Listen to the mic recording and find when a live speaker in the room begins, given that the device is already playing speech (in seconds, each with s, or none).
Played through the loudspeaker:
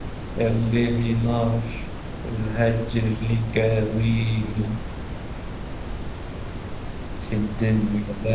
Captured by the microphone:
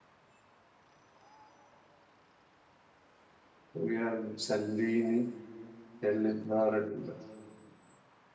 3.7 s